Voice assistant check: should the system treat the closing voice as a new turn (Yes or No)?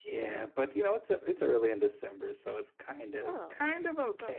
Yes